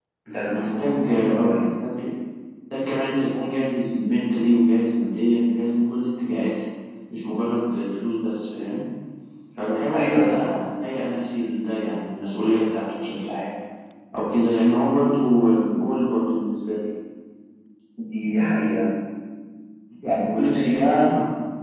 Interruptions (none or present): present